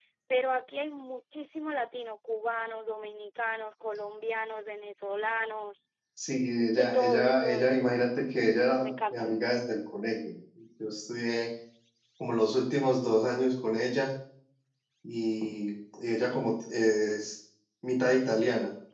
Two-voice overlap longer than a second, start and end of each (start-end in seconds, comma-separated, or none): 6.7-8.0